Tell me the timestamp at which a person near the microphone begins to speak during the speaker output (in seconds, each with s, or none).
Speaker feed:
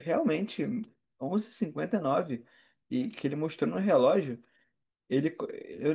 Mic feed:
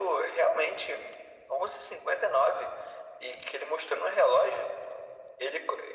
none